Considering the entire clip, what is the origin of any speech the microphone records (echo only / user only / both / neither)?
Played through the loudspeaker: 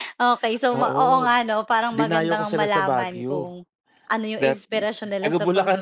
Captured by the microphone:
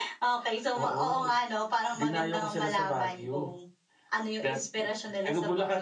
echo only